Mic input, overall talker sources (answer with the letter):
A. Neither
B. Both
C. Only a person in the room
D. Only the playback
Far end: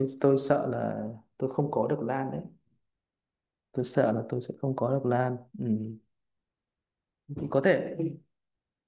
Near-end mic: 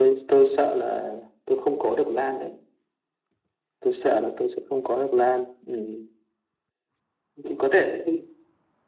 D